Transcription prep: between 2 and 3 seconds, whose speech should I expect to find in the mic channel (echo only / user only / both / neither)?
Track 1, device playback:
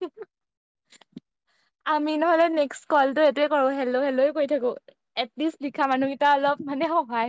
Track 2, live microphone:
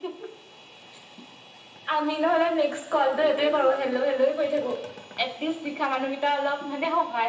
echo only